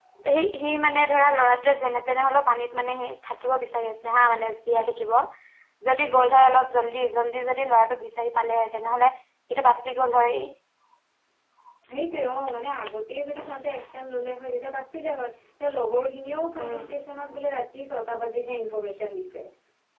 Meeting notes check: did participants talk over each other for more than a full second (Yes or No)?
No